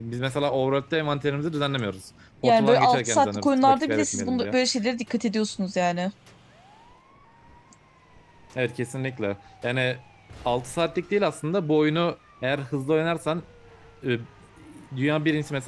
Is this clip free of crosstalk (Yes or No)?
No